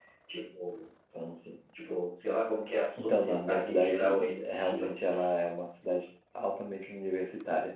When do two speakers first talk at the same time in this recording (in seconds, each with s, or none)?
3.0 s